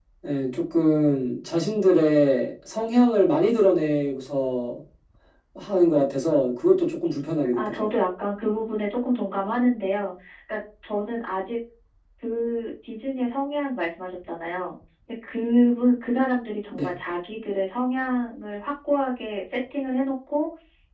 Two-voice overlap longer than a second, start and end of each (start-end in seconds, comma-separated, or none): none